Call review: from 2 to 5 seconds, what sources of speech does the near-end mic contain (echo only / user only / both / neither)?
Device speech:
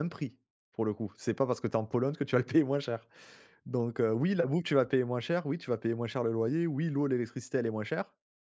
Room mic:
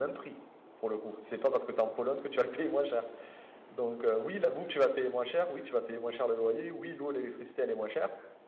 echo only